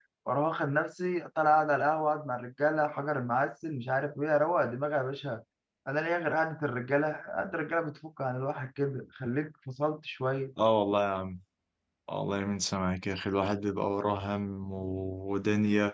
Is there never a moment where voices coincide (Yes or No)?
Yes